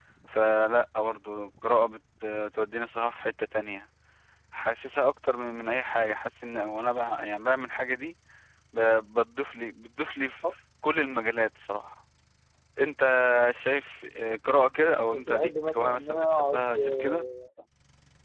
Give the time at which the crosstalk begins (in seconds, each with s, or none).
15.1 s